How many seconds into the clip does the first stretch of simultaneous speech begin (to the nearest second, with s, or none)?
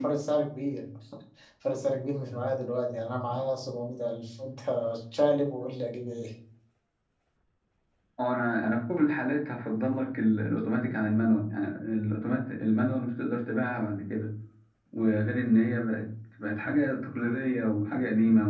none